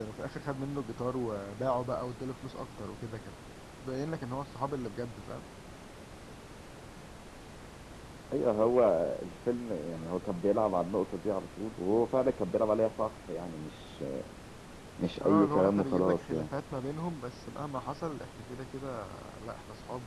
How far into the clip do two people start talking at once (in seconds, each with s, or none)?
15.2 s